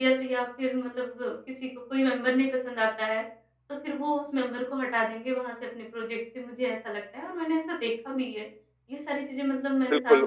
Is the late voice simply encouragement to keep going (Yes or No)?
No